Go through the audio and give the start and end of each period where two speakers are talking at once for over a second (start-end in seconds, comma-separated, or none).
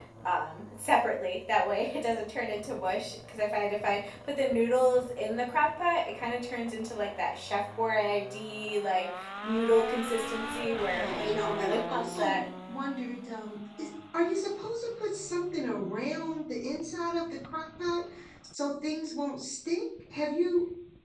10.9-12.4